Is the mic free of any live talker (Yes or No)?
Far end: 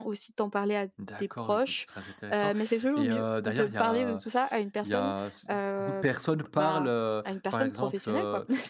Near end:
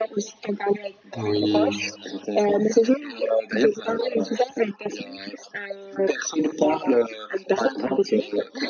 No